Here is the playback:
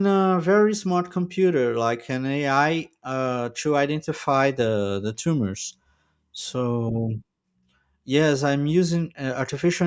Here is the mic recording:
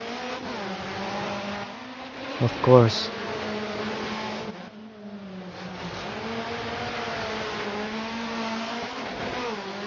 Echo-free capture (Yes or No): Yes